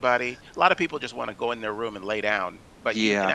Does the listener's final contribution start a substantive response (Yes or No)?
No